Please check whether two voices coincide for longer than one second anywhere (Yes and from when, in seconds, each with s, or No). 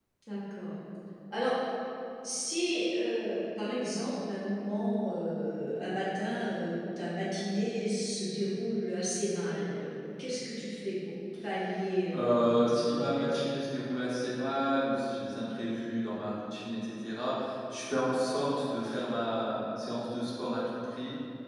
Yes, from 12.1 s